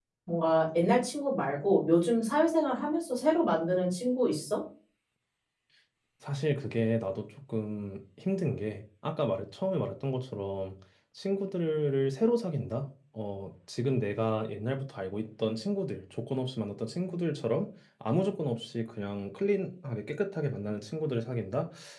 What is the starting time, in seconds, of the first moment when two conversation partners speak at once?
none

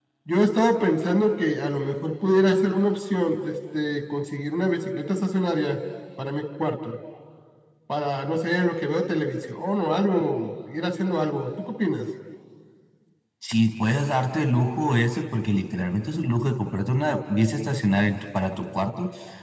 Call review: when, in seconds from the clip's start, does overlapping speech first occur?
none

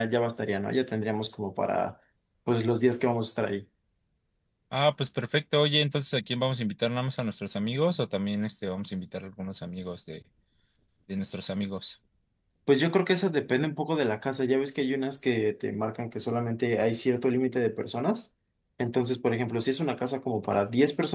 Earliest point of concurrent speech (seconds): none

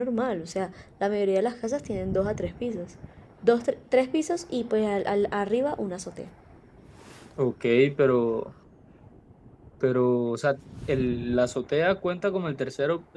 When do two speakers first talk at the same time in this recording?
none

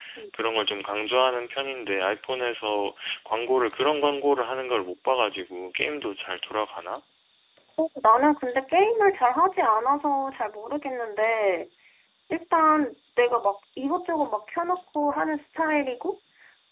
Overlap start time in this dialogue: none

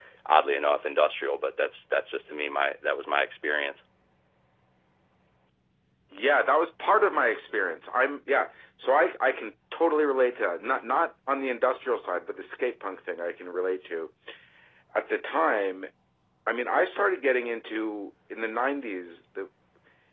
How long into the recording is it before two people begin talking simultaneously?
none

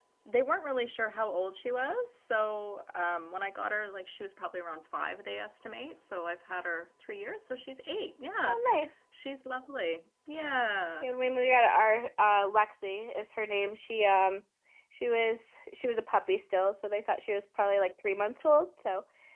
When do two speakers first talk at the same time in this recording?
none

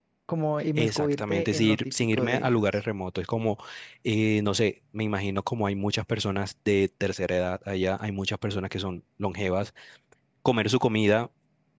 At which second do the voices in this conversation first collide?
0.8 s

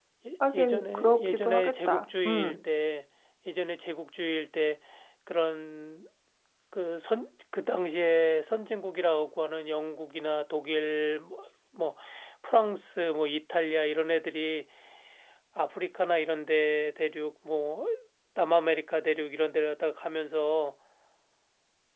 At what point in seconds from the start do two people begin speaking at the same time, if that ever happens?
0.5 s

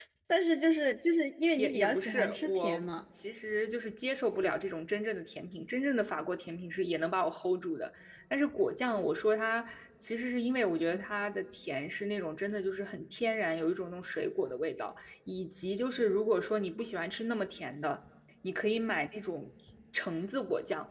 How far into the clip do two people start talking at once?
1.6 s

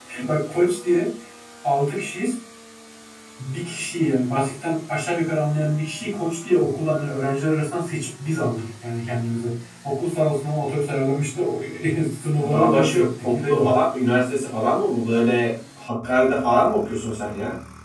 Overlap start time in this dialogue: 12.5 s

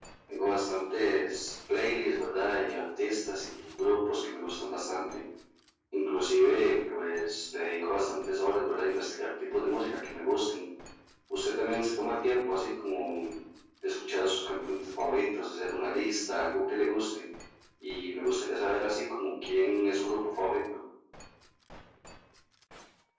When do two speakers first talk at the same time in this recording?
none

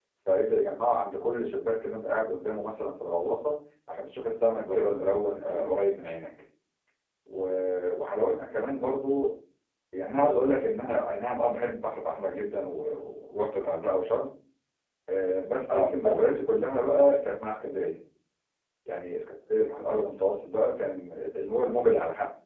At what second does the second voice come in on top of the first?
4.5 s

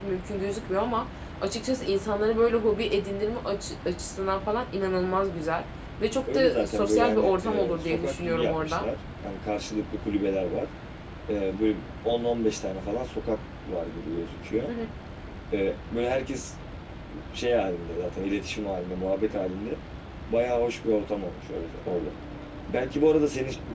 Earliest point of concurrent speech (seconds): 6.3 s

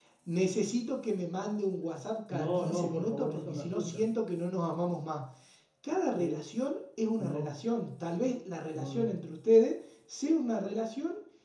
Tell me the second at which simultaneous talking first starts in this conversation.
2.3 s

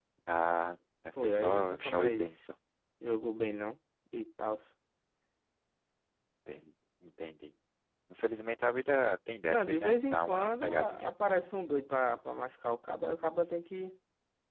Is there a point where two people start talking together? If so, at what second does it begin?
1.2 s

